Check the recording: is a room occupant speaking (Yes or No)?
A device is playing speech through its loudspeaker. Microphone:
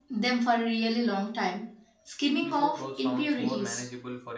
Yes